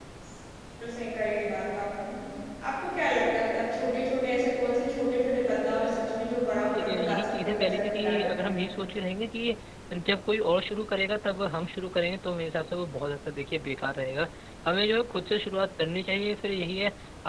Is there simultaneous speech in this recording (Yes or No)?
Yes